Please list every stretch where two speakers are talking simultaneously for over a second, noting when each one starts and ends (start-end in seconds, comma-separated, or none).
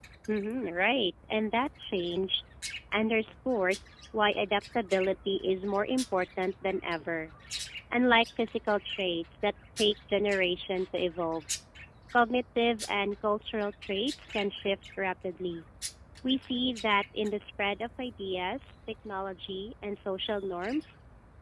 none